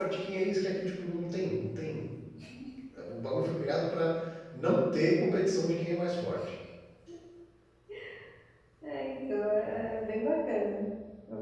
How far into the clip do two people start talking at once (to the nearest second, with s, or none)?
none